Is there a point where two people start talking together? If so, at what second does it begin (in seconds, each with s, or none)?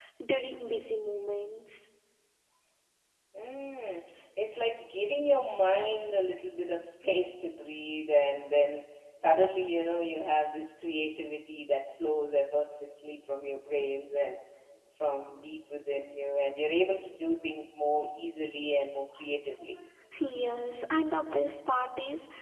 none